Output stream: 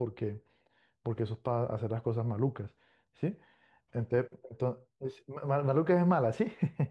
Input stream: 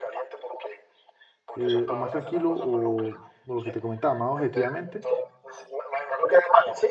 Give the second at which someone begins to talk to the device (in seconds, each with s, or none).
1.5 s